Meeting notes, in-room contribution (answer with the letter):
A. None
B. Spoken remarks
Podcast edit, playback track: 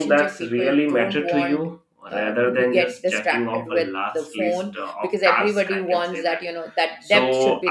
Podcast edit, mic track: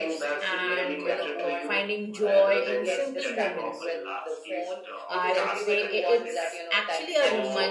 B